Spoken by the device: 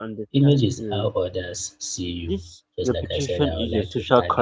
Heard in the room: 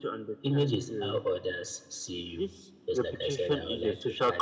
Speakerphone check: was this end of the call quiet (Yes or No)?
Yes